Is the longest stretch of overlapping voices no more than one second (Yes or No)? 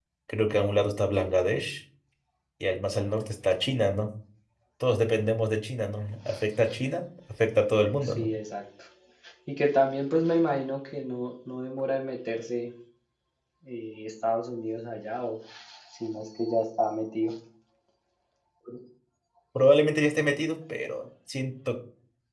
Yes